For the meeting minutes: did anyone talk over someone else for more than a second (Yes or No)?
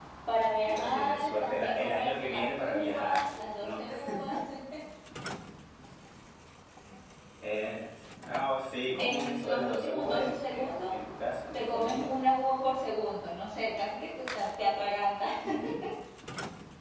Yes